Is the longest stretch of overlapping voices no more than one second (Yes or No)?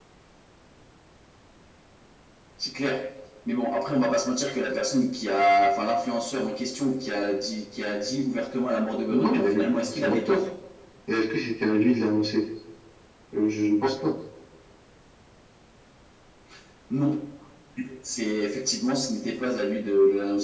No